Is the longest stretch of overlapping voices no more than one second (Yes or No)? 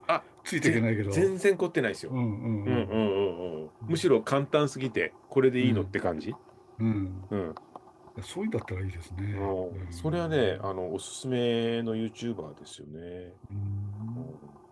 No